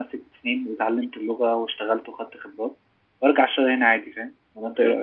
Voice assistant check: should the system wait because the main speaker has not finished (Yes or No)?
No